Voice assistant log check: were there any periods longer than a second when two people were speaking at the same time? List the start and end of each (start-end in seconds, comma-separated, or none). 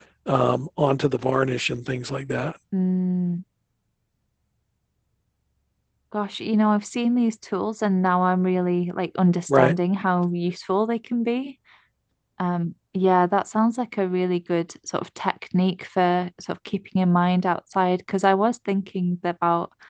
none